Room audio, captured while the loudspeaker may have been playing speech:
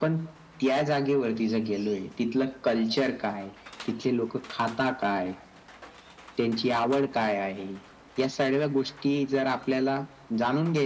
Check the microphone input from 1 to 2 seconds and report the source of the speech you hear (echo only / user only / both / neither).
echo only